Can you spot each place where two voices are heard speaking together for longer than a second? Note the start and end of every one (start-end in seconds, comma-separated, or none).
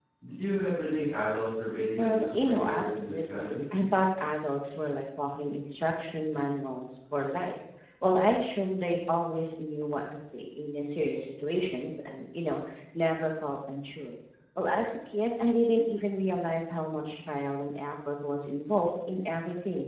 2.0-3.6